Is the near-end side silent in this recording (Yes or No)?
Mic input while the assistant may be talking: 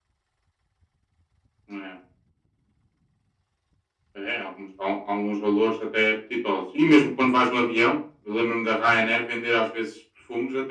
Yes